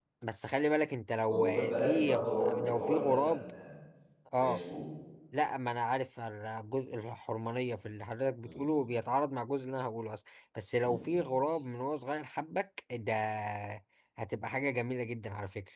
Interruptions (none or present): present